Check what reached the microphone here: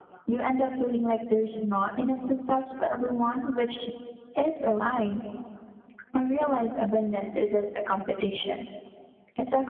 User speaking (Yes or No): No